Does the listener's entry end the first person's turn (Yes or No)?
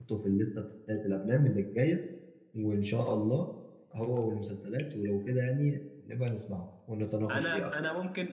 Yes